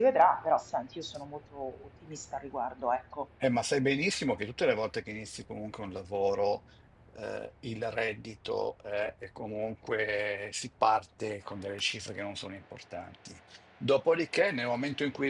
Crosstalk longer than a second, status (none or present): none